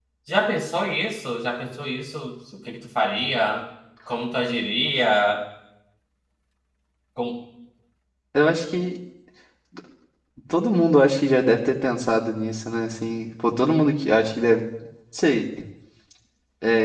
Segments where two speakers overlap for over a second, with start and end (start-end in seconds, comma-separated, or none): none